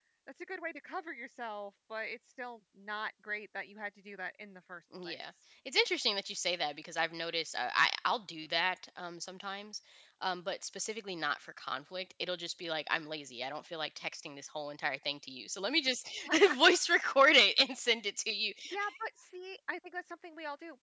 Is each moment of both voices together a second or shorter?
Yes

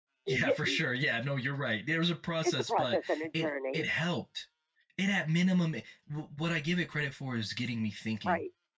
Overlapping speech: Yes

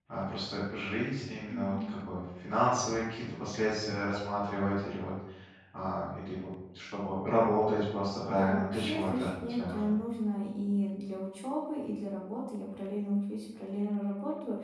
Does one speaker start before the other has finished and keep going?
Yes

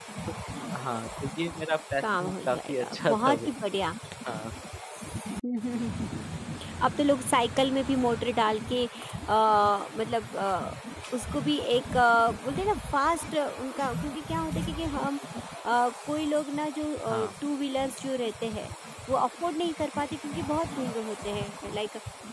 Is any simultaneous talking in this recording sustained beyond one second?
Yes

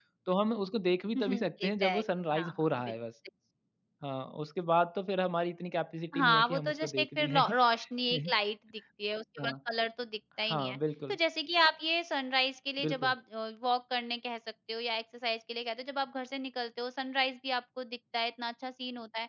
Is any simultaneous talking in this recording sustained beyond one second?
Yes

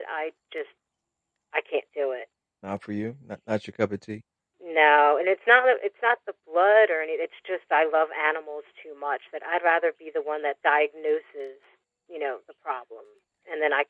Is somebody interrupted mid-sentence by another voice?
No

